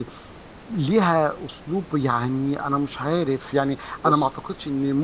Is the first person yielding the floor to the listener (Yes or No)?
No